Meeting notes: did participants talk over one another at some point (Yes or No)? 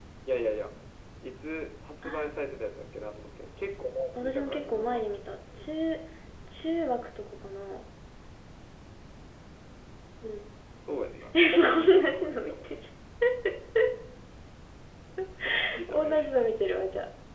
Yes